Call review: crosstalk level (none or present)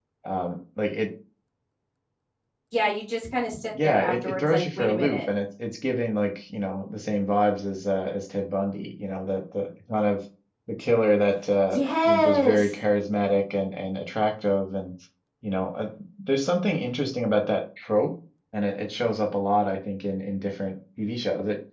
present